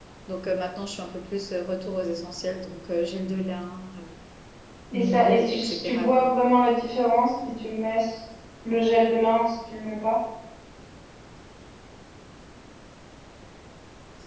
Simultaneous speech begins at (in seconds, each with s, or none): 4.9 s